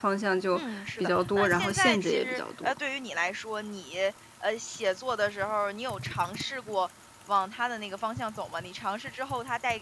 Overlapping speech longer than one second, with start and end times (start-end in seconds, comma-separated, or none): 0.5-2.8